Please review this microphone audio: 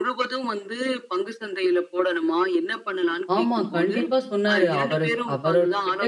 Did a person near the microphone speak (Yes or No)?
Yes